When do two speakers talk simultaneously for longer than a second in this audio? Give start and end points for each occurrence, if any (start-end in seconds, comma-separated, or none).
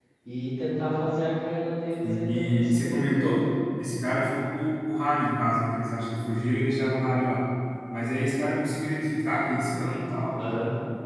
2.0-3.4